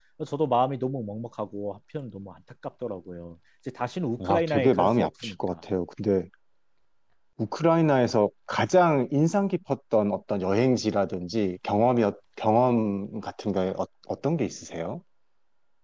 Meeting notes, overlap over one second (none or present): present